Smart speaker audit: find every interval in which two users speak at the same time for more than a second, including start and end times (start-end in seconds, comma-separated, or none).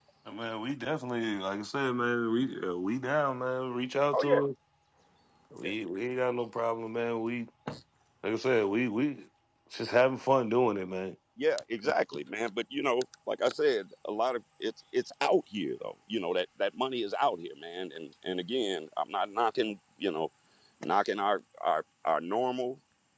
none